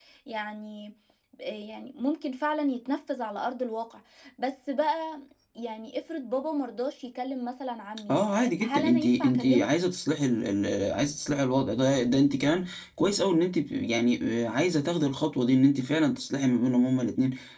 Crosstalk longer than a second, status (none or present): present